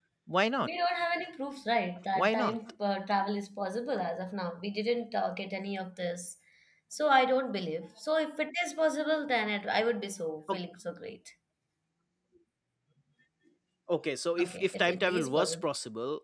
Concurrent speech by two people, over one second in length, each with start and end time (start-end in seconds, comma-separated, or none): 14.4-15.7